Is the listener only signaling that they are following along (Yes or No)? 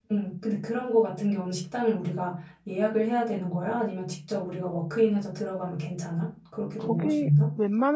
No